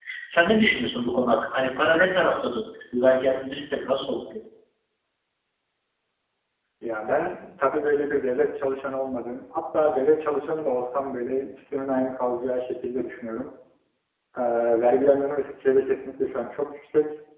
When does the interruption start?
none

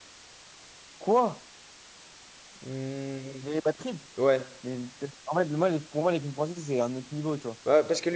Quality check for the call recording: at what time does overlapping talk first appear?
none

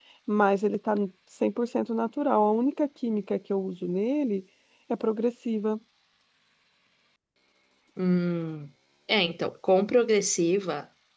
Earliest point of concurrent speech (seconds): none

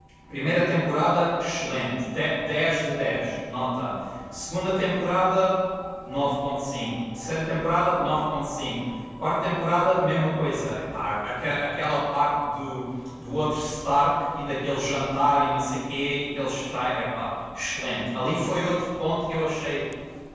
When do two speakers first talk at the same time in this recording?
none

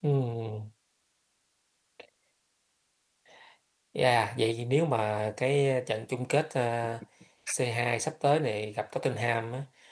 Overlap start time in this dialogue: none

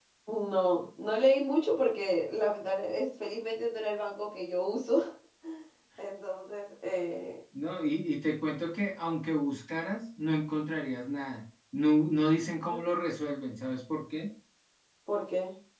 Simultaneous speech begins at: none

